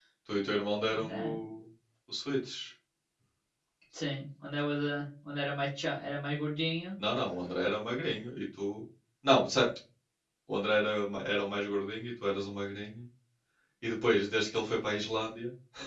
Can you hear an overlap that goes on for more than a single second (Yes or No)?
No